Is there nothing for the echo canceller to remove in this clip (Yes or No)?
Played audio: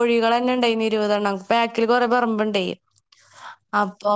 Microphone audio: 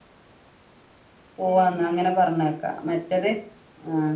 Yes